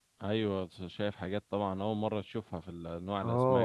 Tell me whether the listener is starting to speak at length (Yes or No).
Yes